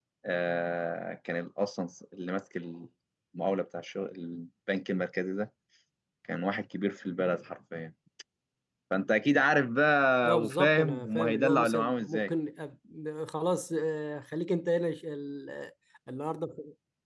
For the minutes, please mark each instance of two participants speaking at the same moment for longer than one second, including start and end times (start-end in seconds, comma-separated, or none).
10.2-12.3